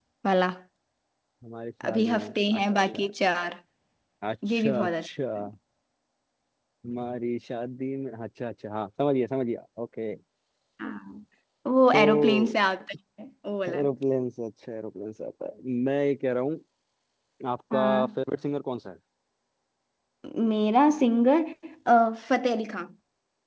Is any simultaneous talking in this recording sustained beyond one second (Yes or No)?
Yes